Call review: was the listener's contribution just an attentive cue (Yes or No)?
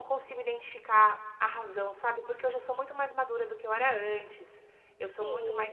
No